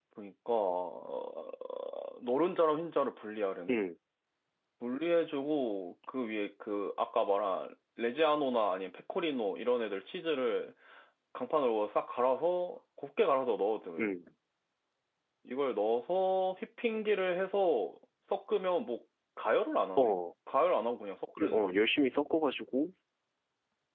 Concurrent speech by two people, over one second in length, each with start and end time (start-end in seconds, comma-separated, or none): none